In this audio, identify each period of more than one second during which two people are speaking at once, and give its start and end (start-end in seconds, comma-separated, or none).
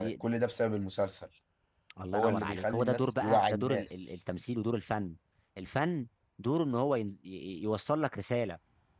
2.1-4.2